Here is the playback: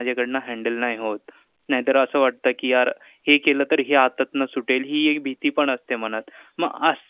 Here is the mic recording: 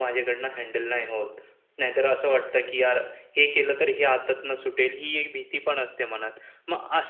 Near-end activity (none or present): none